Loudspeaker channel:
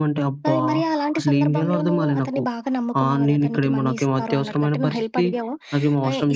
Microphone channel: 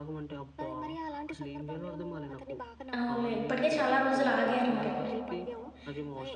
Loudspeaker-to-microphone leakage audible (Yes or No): Yes